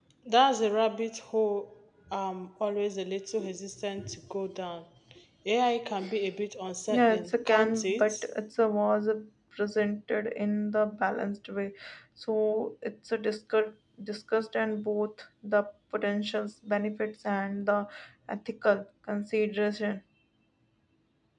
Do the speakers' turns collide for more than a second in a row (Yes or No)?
Yes